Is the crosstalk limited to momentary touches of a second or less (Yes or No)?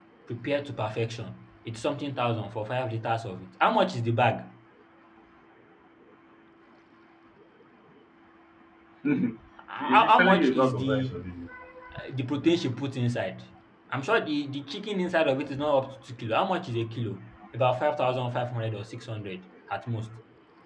No